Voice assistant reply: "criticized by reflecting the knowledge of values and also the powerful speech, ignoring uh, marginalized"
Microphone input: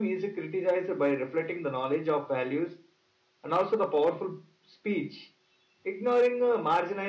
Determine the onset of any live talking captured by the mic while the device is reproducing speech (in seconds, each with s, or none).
none